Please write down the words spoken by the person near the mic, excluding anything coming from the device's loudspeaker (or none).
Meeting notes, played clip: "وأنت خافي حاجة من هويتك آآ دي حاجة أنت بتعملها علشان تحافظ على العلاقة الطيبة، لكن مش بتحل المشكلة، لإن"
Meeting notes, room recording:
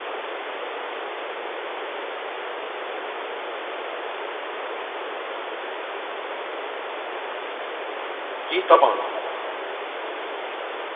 أكيد طبعًا،